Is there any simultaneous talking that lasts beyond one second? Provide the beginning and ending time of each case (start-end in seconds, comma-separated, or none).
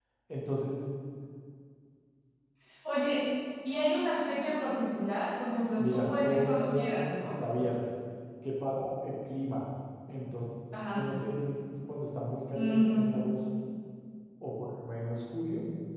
5.8-7.3